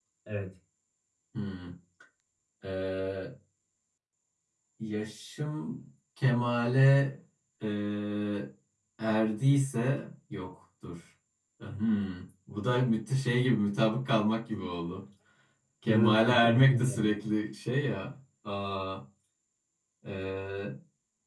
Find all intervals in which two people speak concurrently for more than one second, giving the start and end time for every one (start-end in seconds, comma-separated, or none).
15.8-17.1